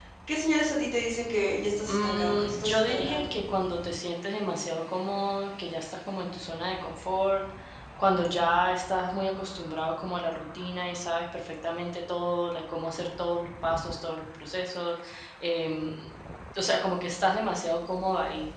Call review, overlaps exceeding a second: present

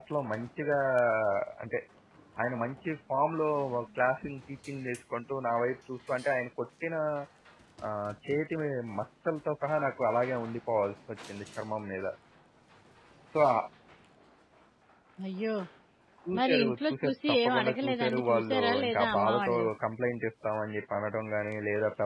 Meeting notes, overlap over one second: present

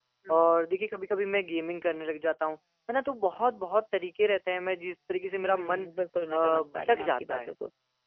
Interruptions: present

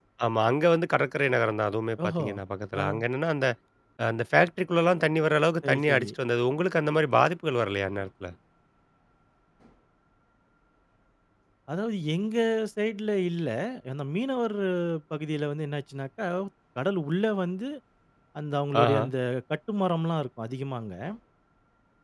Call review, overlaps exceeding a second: none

